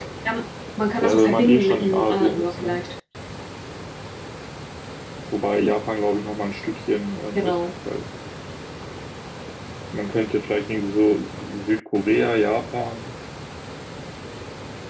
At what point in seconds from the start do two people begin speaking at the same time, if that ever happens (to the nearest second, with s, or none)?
1 s